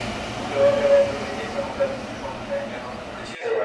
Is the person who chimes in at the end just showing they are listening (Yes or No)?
Yes